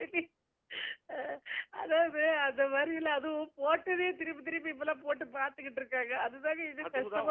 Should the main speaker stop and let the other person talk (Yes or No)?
Yes